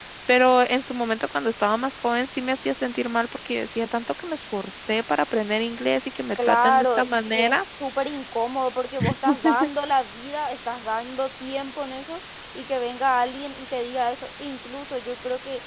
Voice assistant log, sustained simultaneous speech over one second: present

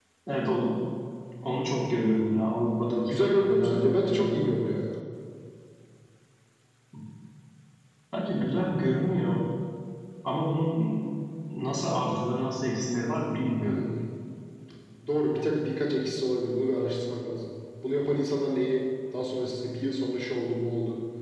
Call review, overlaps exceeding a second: present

